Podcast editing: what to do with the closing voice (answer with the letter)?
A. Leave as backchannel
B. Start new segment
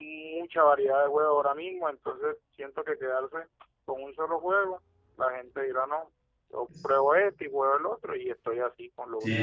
B